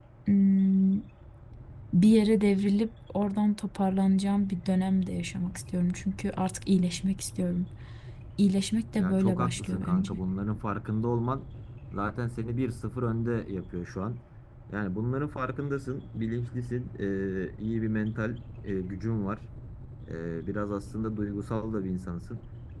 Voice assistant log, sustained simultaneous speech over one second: present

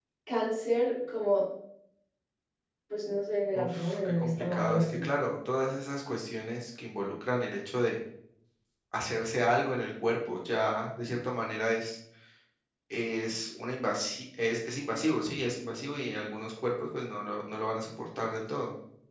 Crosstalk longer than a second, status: present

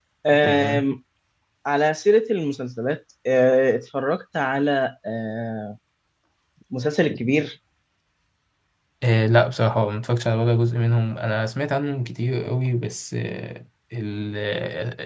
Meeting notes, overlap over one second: none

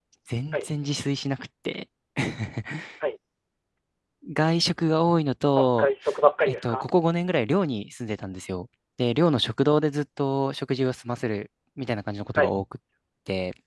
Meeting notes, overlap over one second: none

